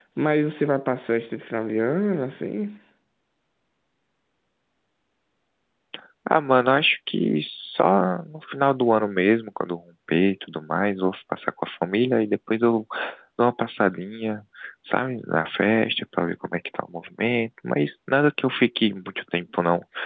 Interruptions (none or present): none